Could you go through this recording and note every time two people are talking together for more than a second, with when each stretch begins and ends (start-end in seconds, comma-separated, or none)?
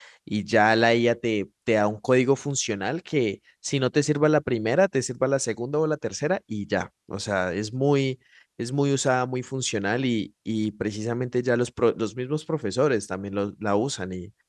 none